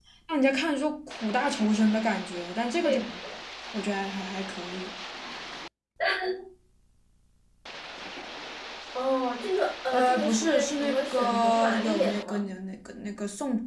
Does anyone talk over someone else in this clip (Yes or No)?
Yes